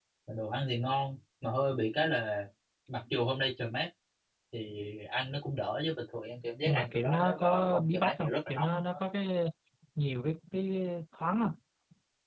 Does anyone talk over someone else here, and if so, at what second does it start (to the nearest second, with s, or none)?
7 s